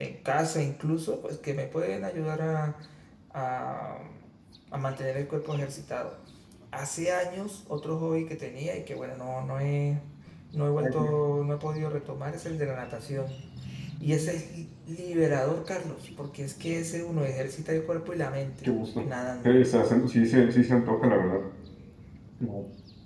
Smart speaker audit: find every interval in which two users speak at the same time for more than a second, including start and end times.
none

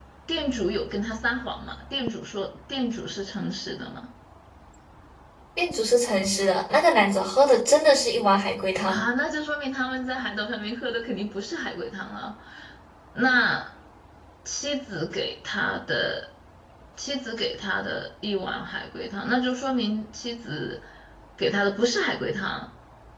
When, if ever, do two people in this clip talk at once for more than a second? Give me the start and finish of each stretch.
none

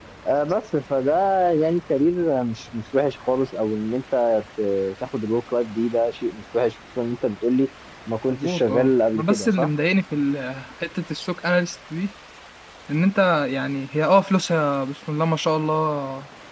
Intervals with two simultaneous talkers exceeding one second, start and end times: 8.3-9.7

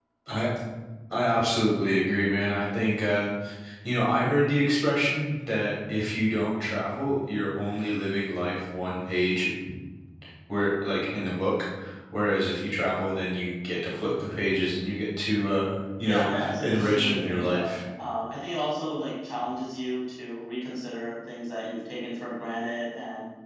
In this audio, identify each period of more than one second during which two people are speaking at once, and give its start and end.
16.0-17.8

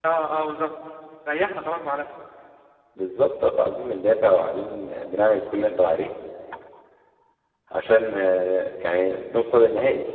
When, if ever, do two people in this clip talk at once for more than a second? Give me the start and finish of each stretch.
none

